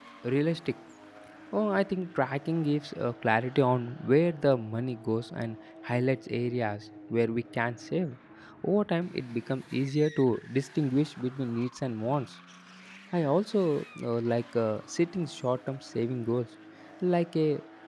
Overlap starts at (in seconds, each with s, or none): none